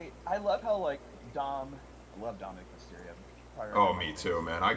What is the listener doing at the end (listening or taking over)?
taking over